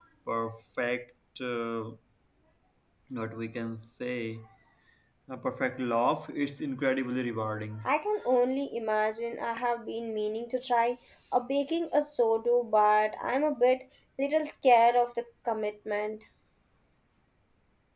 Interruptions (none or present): none